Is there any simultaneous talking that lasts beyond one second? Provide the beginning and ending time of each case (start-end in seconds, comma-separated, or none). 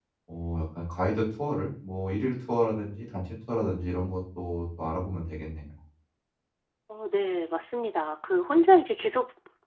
none